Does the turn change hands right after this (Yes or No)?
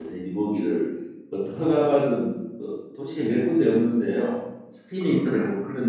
No